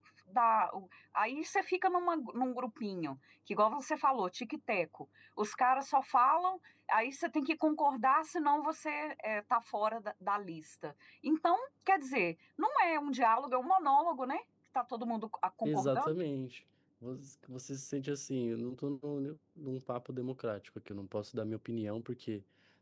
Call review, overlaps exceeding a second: none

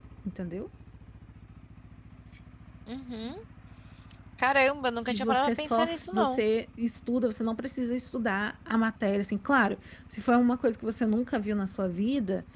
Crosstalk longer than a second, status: present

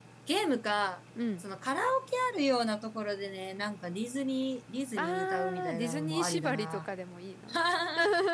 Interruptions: present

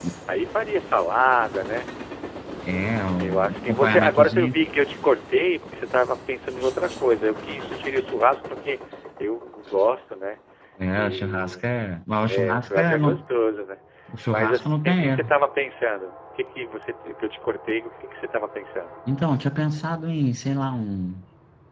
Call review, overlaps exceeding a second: present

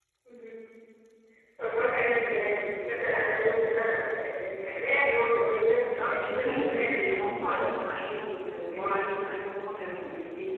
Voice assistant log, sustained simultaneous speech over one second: present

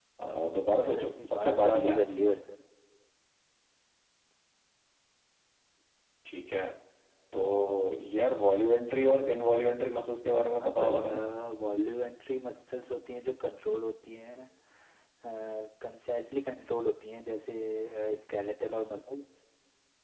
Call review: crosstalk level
present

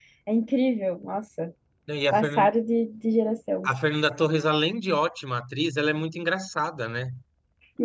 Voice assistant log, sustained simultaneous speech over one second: none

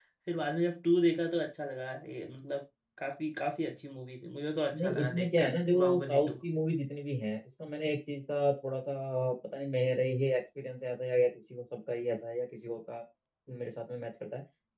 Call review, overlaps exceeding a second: present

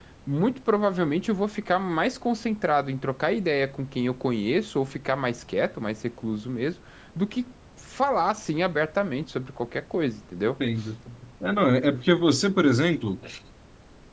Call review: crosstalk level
none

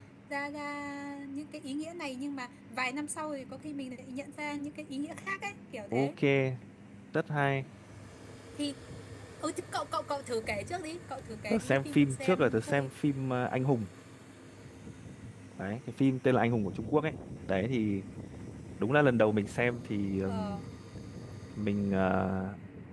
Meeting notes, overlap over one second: present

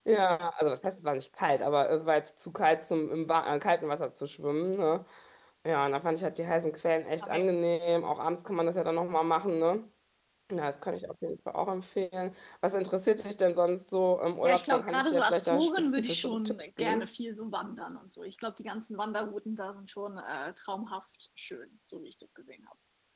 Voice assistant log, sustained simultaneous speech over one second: present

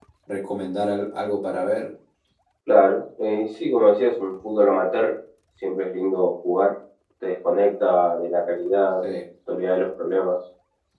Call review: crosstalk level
none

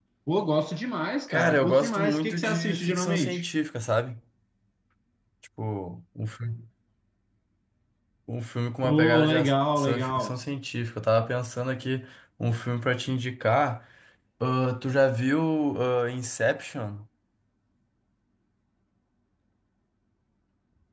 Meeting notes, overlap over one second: present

